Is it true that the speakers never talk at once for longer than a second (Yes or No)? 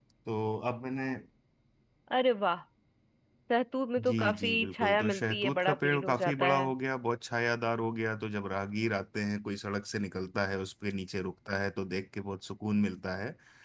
No